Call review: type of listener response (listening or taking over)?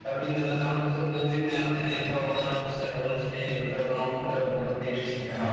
taking over